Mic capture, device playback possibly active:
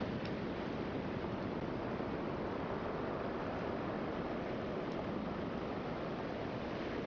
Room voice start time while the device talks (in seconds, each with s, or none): none